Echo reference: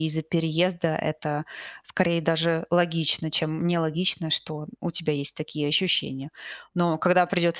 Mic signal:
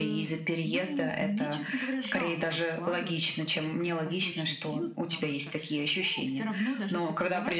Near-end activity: present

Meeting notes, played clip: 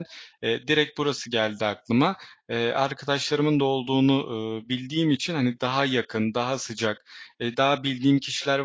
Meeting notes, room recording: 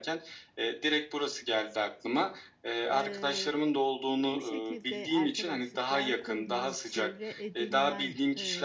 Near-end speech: present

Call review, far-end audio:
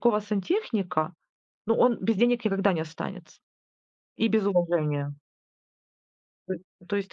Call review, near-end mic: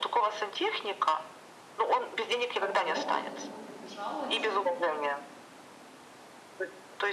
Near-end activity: present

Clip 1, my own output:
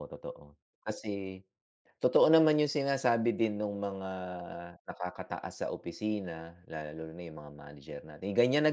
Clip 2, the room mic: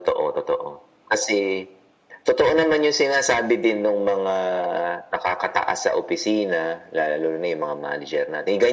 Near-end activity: none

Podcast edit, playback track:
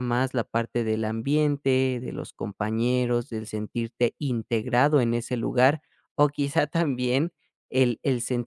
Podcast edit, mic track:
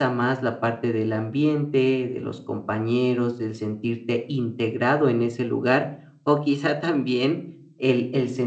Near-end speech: none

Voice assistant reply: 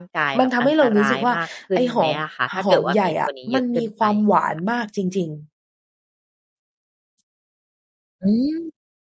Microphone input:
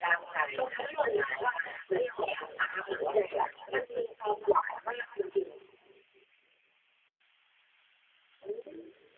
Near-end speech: none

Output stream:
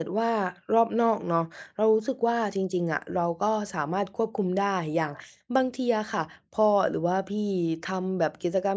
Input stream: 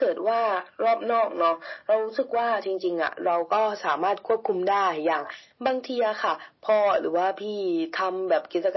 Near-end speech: none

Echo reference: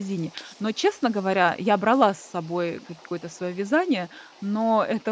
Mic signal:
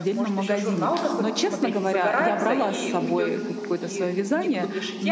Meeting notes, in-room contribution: present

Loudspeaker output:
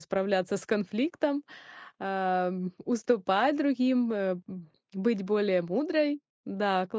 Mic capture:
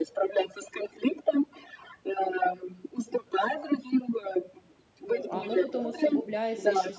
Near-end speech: present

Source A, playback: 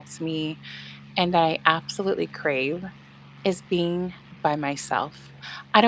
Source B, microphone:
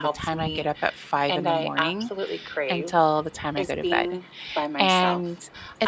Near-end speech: present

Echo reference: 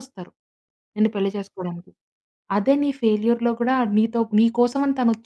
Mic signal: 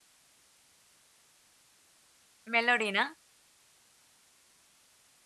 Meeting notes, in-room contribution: present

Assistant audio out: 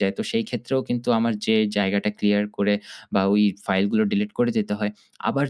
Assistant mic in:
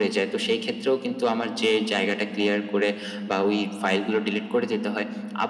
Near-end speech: none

